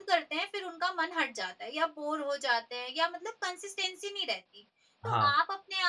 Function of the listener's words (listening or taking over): listening